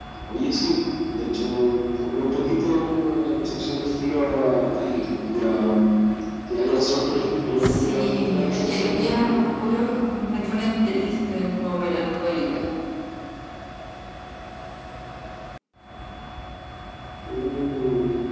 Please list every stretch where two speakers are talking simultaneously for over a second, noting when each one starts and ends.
7.6-9.4

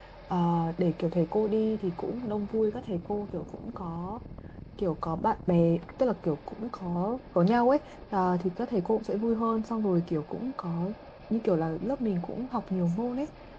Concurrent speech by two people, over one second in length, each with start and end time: none

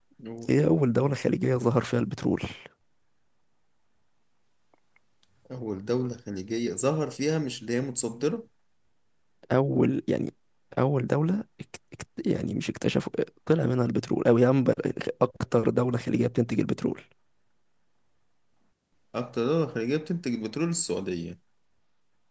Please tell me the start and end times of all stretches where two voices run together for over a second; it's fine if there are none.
none

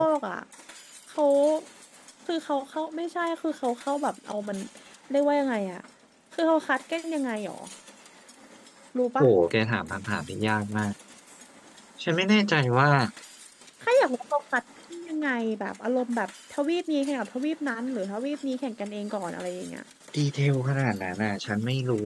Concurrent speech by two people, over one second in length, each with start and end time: none

